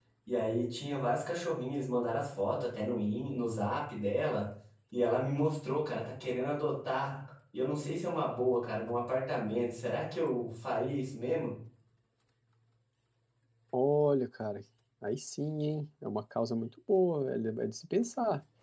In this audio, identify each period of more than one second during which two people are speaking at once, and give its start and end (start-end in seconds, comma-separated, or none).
none